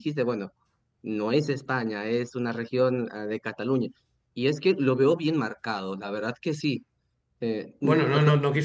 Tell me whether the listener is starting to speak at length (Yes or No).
Yes